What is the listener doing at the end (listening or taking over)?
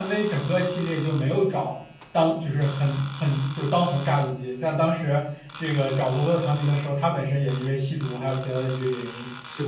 listening